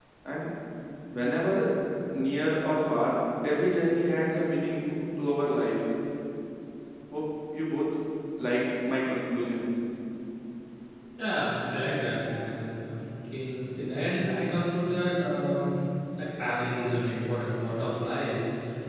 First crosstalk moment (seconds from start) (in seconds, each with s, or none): none